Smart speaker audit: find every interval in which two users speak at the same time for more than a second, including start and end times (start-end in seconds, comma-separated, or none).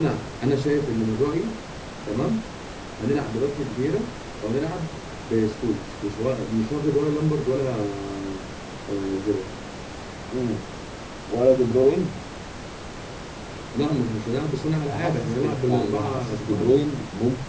14.8-16.7